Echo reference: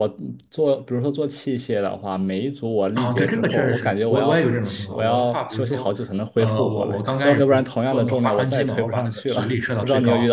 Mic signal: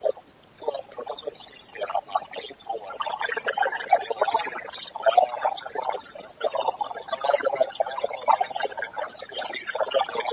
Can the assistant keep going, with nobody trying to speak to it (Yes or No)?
Yes